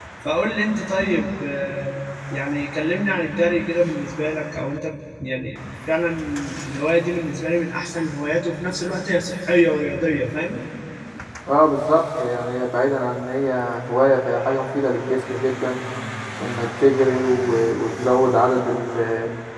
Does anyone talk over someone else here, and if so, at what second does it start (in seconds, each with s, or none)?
none